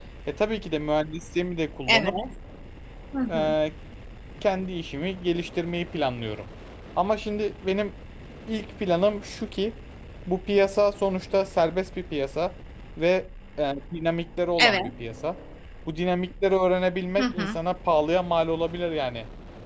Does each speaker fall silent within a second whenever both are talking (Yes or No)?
Yes